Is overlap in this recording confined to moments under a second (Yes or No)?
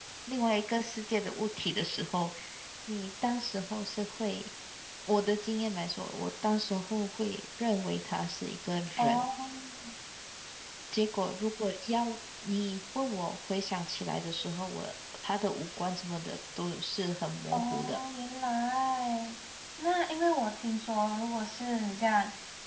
Yes